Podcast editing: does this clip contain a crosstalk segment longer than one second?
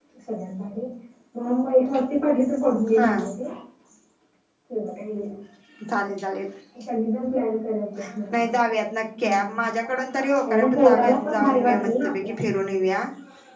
Yes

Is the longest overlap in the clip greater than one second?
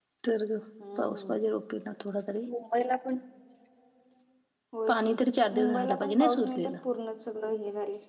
Yes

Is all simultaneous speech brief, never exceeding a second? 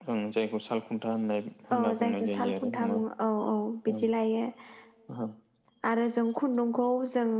No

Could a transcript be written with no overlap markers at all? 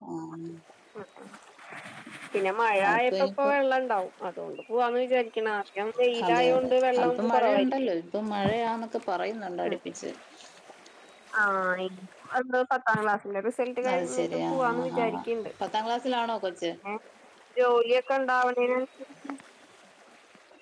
No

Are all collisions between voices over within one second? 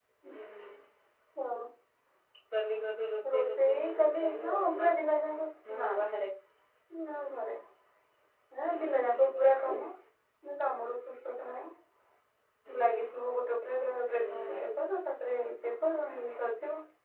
No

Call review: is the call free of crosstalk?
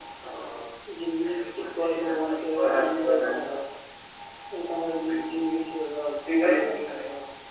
No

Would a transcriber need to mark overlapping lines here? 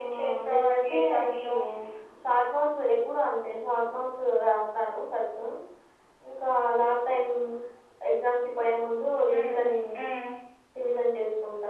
Yes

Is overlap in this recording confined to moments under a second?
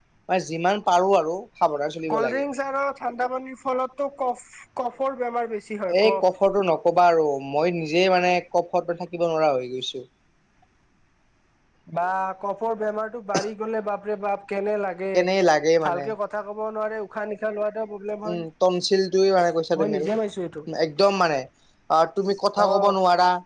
Yes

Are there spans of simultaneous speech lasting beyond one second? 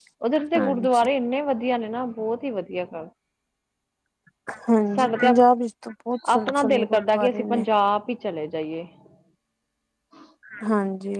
Yes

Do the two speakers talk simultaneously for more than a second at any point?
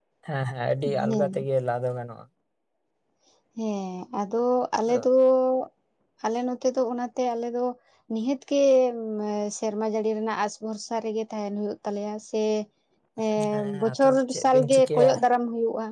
Yes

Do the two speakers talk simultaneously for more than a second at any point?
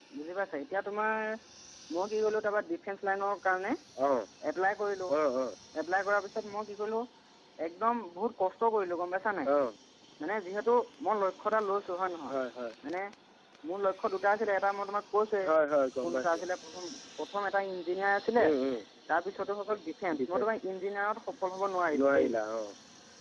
No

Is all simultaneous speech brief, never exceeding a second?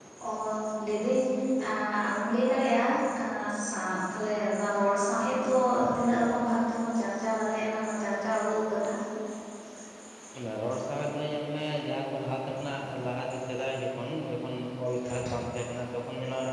Yes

